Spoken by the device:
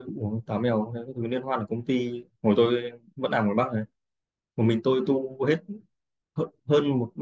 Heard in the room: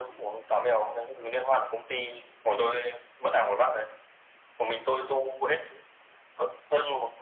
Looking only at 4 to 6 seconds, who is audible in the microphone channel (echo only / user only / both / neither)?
echo only